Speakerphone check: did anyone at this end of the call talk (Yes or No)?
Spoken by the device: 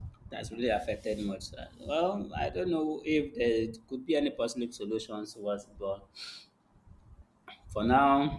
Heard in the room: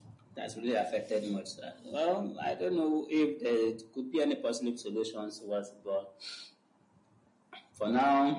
No